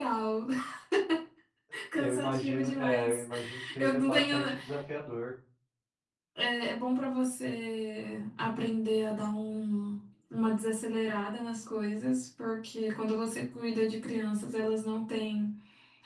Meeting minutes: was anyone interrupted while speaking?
Yes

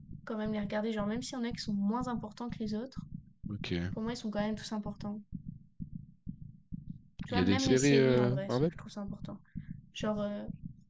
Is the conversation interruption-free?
No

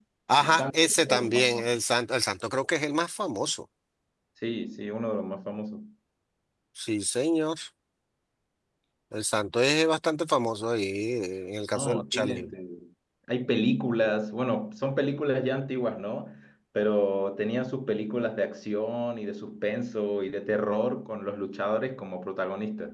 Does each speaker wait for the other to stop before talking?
No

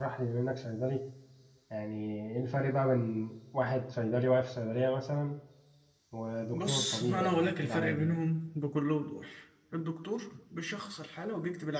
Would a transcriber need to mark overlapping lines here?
Yes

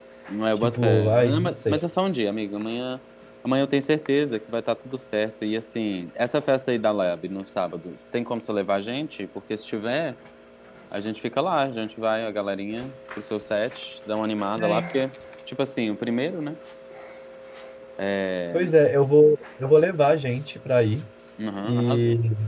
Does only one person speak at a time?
No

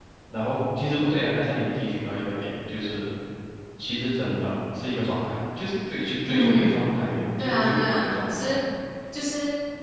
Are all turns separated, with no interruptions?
No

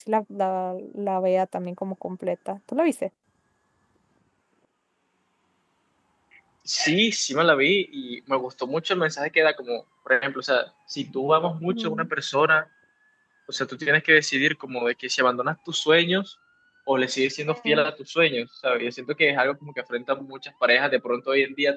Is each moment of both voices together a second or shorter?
Yes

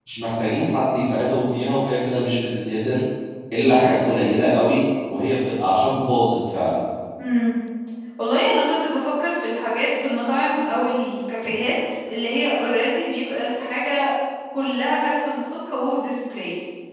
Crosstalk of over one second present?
No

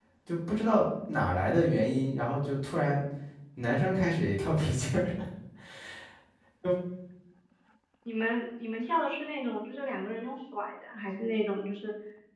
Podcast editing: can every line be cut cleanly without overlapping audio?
Yes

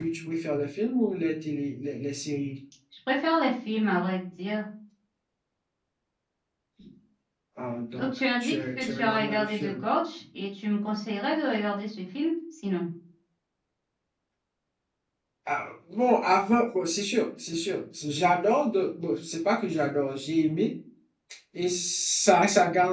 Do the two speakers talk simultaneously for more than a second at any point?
Yes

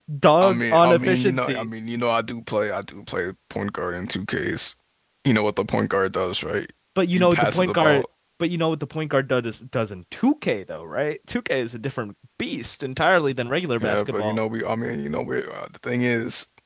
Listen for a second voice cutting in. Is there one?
Yes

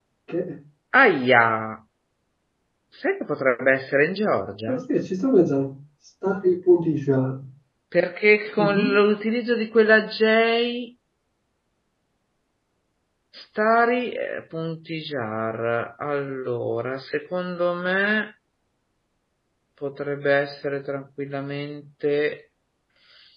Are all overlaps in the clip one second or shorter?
Yes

